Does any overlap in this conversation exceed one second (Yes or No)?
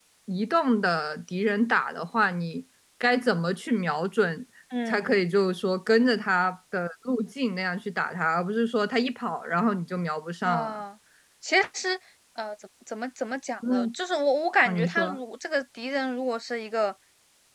No